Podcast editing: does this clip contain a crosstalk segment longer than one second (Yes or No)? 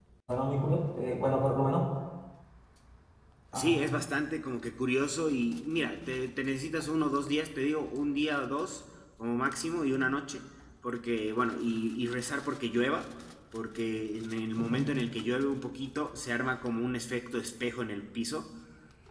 No